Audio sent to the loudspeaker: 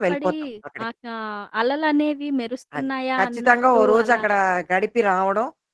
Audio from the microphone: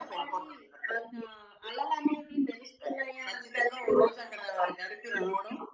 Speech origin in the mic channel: echo only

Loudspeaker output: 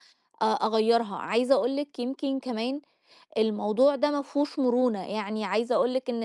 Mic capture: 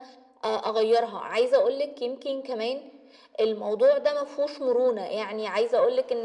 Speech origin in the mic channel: echo only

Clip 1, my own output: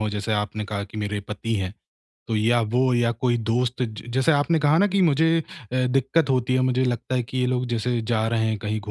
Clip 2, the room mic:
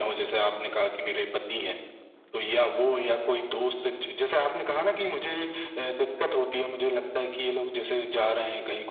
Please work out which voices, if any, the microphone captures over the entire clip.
echo only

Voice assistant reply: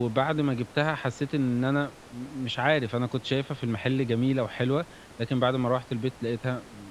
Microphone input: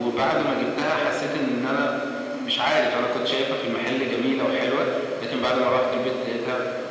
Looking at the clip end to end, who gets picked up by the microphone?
echo only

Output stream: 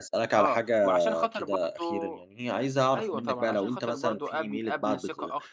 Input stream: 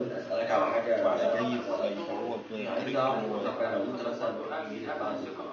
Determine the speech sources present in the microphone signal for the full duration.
both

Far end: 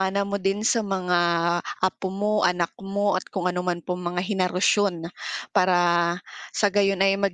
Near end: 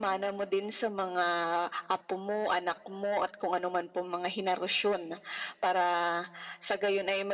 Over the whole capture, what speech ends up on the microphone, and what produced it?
echo only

